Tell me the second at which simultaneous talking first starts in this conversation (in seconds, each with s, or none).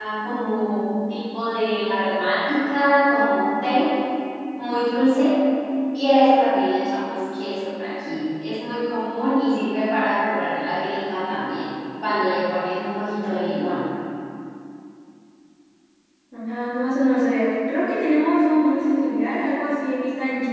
none